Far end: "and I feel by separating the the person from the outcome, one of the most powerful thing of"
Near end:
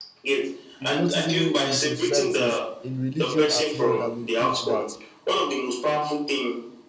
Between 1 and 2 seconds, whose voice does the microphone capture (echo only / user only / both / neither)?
both